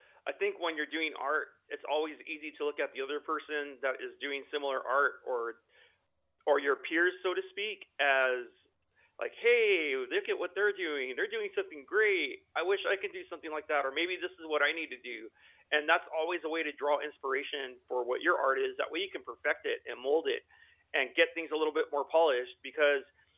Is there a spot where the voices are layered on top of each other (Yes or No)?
No